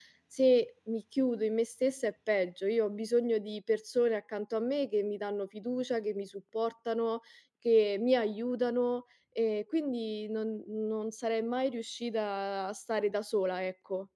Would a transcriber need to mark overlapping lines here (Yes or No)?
No